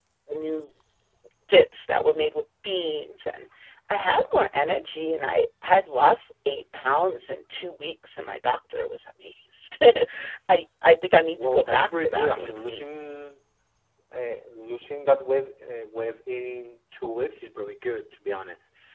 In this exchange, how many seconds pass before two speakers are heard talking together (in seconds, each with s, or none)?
11.2 s